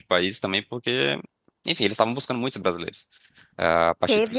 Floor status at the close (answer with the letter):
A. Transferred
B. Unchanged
A